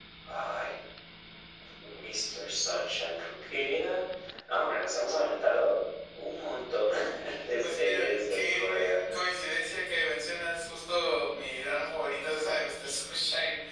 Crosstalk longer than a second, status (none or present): present